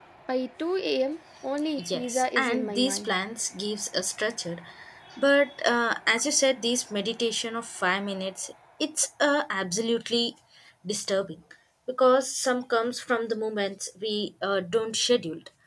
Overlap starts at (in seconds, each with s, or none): 1.8 s